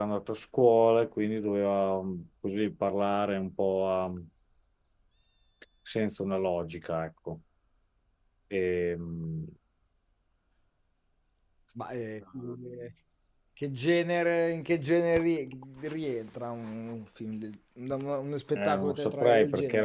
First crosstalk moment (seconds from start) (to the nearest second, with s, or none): 19 s